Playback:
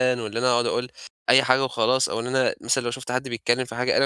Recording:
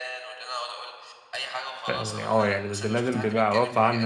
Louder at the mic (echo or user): user